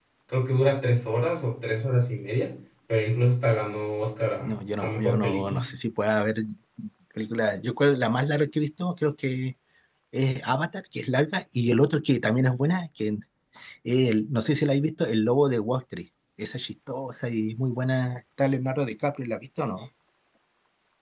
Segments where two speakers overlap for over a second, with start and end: 4.4-5.7

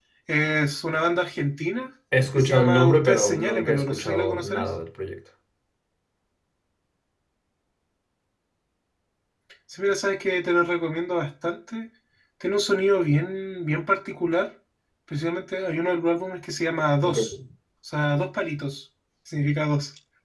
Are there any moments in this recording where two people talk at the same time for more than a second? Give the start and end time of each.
2.4-4.7

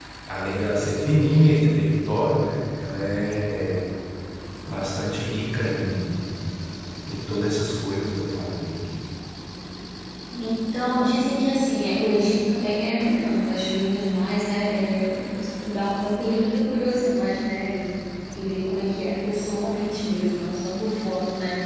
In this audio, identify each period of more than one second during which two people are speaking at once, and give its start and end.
none

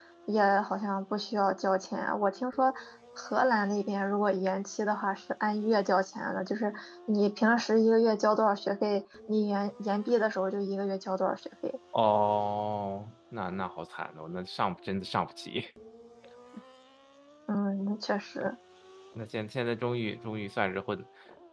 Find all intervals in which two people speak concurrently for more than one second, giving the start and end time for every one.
none

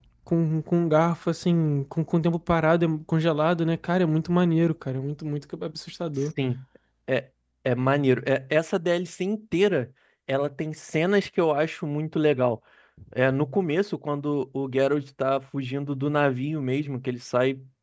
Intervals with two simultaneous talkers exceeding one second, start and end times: none

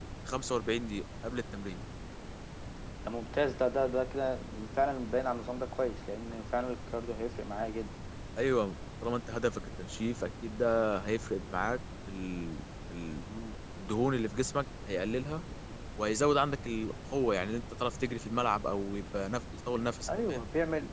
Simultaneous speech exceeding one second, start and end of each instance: none

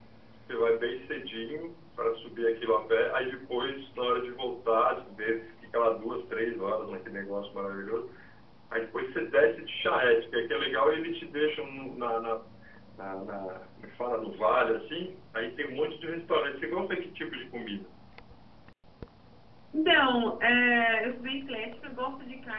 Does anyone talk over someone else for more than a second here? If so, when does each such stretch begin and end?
none

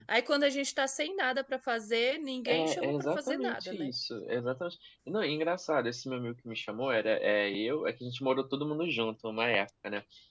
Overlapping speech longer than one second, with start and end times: 2.5-3.9

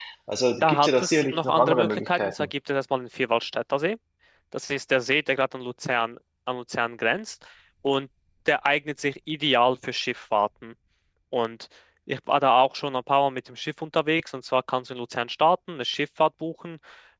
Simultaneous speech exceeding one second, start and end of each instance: 0.6-2.5

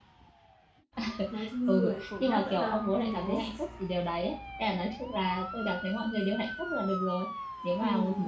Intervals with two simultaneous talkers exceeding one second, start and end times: 1.7-3.4

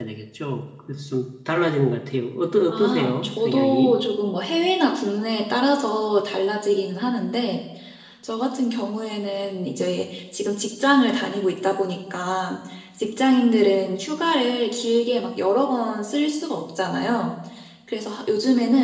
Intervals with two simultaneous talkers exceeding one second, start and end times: 2.7-4.0

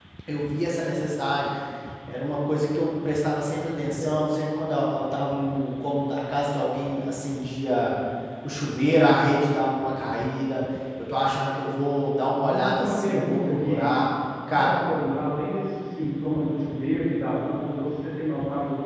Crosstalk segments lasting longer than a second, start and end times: 12.4-13.9

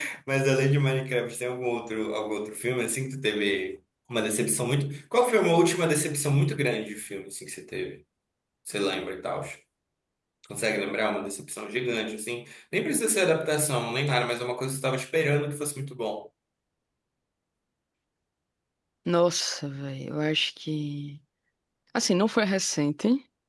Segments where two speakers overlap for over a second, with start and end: none

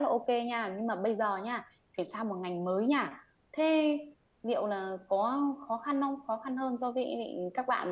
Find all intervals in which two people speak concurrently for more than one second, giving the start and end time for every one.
none

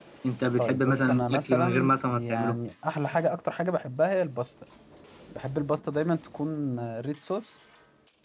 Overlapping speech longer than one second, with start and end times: 0.6-2.6

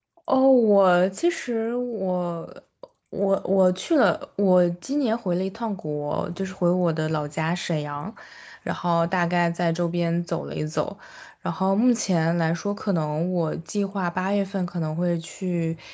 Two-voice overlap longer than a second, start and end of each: none

